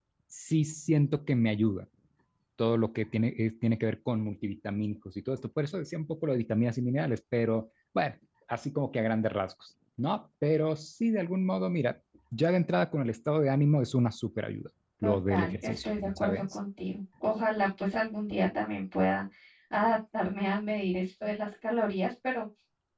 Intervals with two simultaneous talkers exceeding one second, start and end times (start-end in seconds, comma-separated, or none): 15.0-16.6